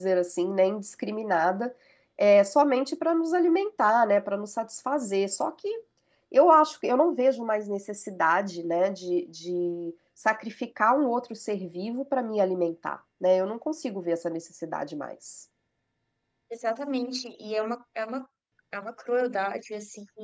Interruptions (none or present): none